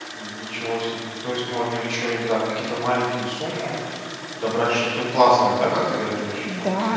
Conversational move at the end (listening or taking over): taking over